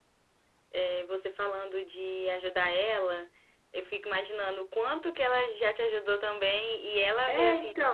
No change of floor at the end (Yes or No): Yes